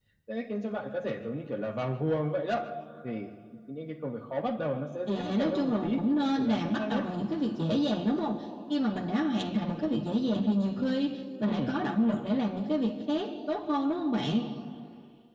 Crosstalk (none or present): present